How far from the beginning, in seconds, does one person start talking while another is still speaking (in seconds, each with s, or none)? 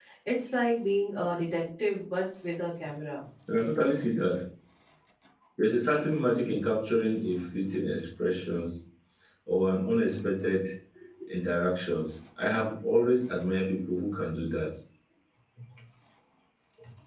none